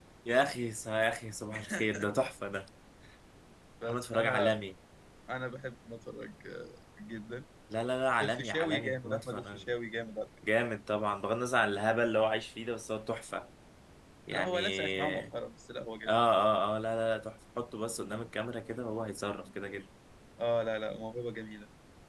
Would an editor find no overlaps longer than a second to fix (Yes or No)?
No